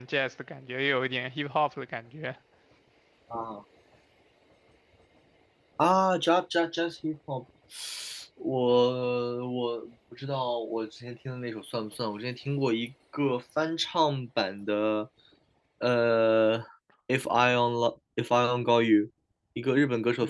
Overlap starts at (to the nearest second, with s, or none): none